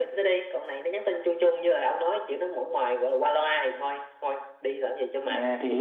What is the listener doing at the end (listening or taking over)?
taking over